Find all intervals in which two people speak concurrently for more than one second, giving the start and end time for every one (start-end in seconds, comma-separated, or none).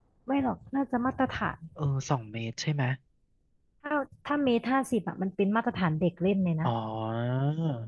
none